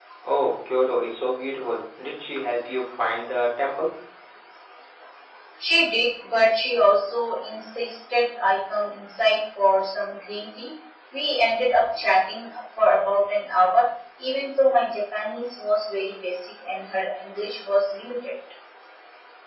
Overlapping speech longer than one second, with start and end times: none

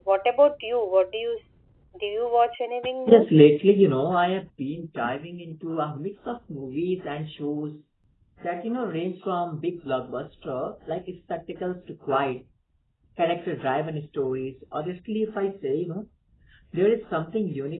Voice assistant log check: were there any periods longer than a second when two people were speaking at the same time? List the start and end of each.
none

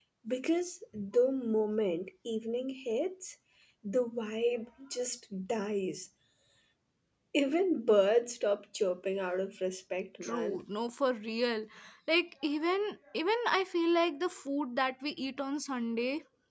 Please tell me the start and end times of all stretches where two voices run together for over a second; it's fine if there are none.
none

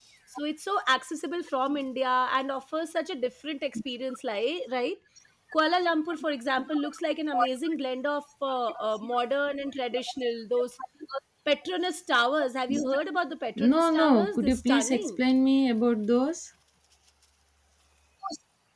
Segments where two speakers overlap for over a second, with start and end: 13.6-15.1

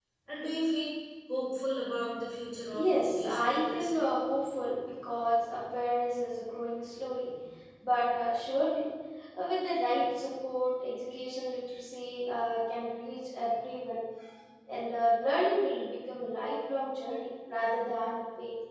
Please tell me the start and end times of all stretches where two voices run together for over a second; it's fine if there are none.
2.7-4.0

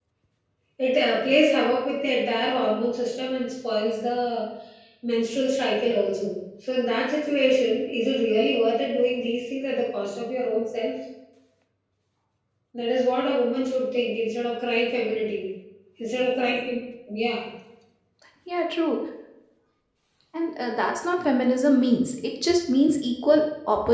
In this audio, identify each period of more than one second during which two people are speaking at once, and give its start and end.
none

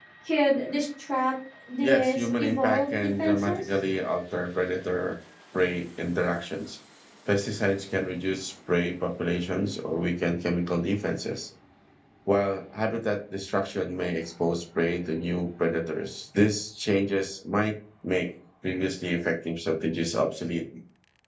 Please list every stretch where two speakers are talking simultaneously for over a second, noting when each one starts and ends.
1.8-3.6

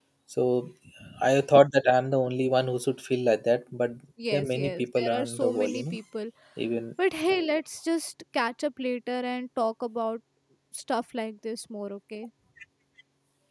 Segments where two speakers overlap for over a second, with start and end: 4.3-6.0

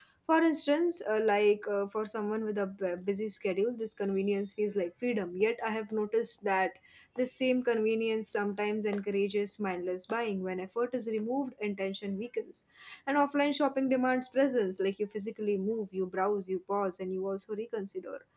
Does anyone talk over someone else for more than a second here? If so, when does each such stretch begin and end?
none

